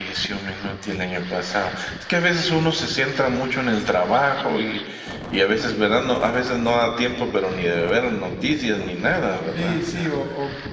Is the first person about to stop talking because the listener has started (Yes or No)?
Yes